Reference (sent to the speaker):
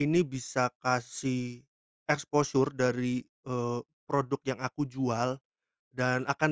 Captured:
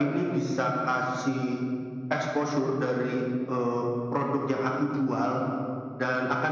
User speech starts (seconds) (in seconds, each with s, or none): none